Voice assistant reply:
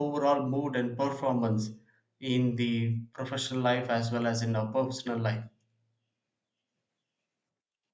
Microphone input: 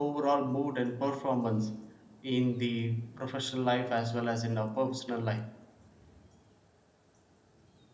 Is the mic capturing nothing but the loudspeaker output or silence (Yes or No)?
Yes